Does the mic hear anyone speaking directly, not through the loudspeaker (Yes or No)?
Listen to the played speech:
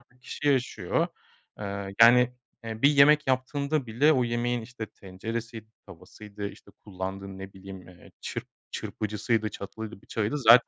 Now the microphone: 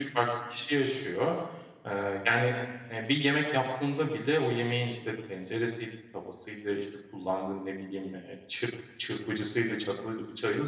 No